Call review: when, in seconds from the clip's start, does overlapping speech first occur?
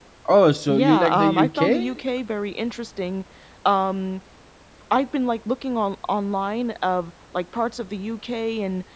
0.7 s

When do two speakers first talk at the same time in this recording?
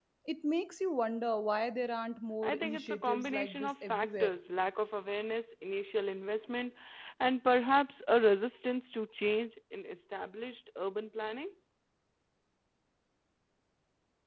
2.4 s

